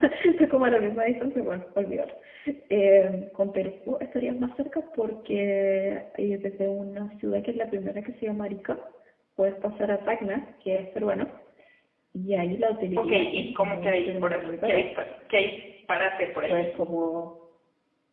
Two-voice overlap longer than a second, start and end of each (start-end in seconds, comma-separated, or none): 13.0-14.9